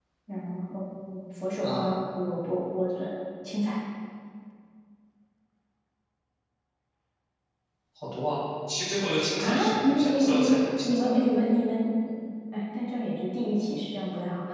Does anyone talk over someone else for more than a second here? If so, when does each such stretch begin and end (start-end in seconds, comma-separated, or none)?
9.4-11.1